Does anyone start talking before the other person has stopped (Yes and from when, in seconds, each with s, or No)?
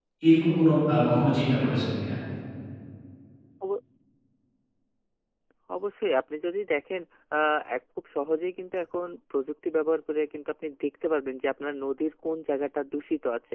No